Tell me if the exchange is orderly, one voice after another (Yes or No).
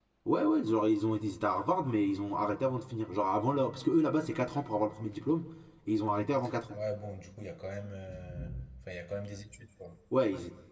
Yes